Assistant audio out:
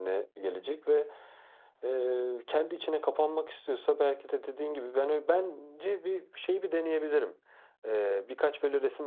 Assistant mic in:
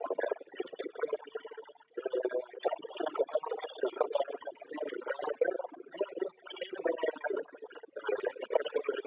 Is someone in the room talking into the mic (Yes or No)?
No